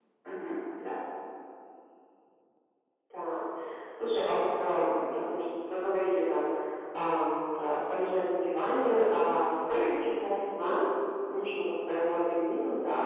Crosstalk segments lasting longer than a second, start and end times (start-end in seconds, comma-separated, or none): none